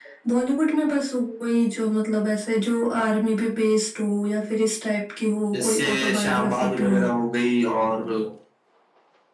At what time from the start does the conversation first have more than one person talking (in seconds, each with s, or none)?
5.5 s